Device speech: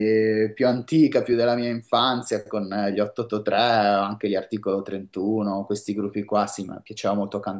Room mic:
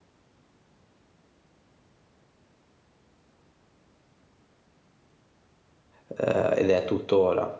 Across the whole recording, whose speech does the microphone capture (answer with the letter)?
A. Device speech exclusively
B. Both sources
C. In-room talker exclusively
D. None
C